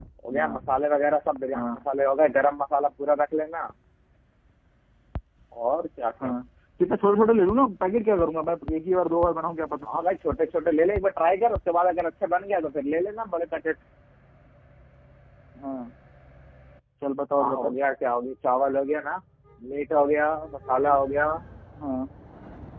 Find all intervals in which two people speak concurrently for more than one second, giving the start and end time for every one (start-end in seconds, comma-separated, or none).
none